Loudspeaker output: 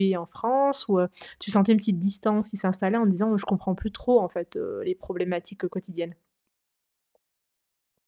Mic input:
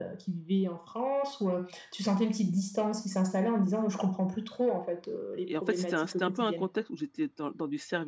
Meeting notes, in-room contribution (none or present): present